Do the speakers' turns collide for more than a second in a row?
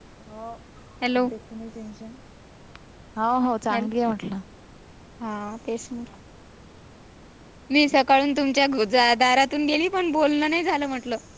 No

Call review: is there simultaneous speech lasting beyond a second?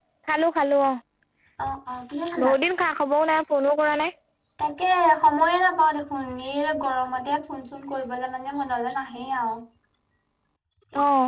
No

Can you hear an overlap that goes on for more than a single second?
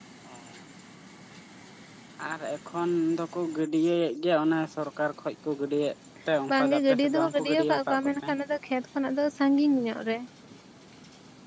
Yes, from 6.5 s

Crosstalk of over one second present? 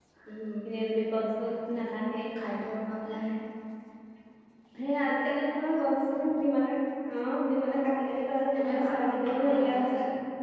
Yes, from 8.5 s

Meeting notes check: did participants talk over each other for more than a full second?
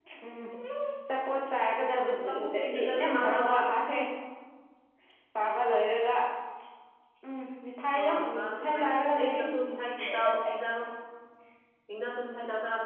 Yes, from 2.3 s

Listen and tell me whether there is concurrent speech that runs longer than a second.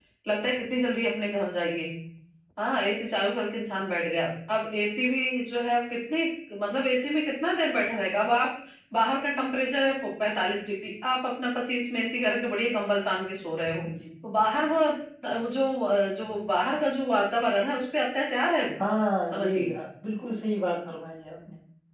No

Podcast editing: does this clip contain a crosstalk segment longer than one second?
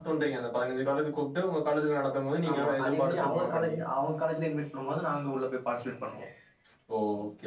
Yes, from 2.4 s

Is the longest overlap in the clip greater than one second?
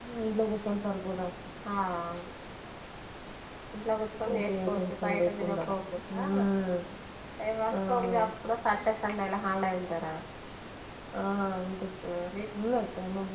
Yes, from 4.4 s

